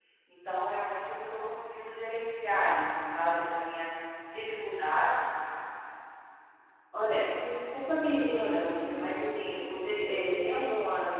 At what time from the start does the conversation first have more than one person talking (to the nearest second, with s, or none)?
none